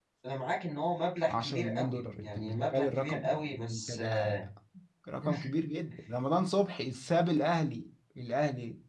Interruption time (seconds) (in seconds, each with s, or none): 1.3 s